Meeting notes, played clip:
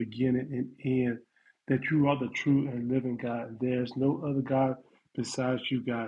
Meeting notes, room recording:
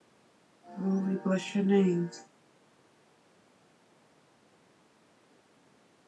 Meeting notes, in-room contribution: present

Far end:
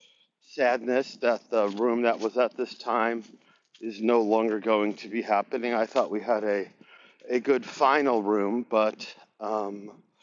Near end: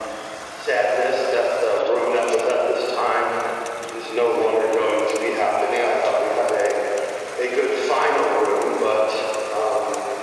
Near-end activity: none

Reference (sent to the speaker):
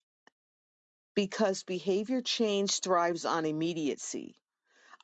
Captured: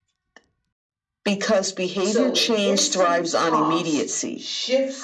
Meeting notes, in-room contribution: present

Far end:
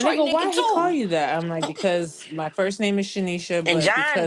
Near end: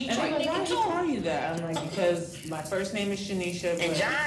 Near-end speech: none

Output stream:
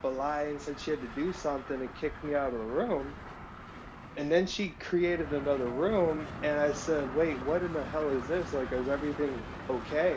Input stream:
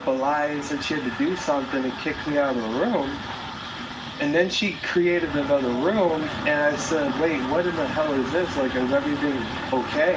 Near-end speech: none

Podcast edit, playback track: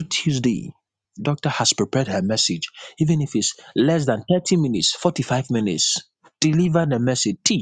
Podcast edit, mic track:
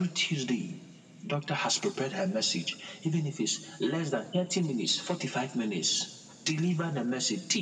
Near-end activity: none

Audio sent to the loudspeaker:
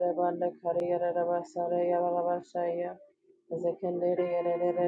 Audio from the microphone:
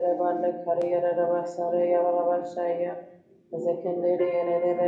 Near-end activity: none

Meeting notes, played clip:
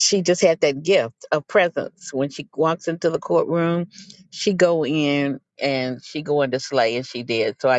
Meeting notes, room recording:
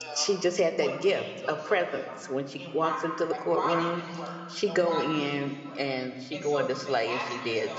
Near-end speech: present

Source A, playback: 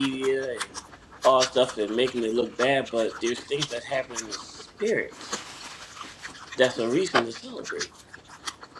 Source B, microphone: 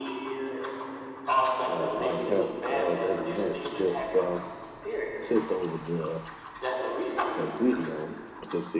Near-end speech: present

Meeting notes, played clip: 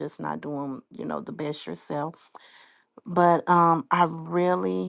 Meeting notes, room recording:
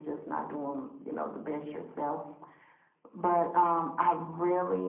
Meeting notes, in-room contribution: none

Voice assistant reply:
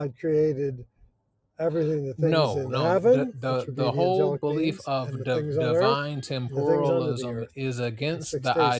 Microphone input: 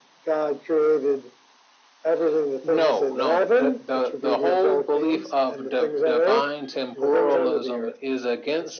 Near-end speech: none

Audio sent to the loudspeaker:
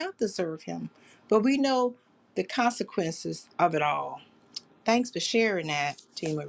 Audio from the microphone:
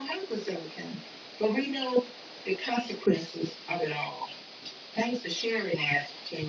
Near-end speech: none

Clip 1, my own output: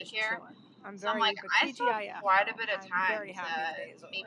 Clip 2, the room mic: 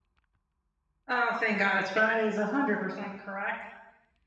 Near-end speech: present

